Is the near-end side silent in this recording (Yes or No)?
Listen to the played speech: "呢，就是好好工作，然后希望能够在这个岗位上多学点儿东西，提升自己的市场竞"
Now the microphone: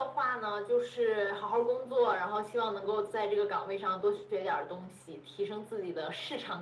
Yes